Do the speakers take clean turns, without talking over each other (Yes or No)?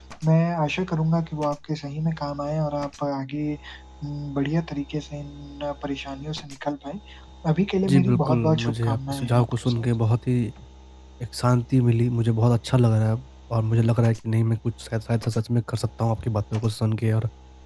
No